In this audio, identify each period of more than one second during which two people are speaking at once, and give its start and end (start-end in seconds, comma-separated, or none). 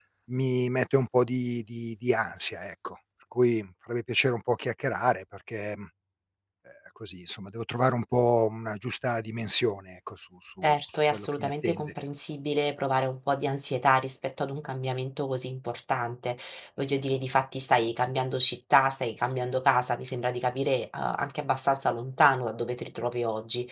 10.6-11.9